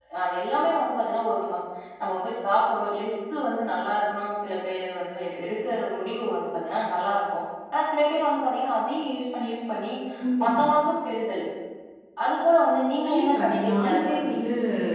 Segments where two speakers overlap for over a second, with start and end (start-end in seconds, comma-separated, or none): 13.1-14.4